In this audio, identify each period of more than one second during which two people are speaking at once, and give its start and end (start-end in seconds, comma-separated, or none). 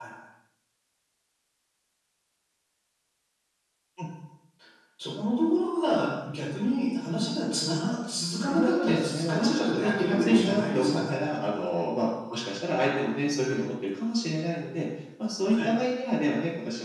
8.5-11.2